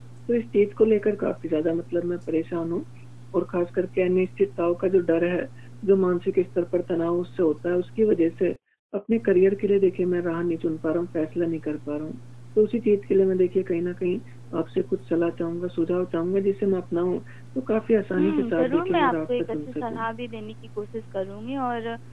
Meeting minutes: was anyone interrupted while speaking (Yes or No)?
Yes